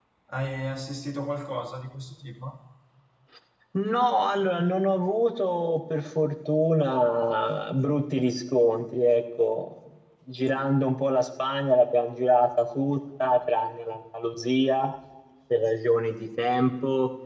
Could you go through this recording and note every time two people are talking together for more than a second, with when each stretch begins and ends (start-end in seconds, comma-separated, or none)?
none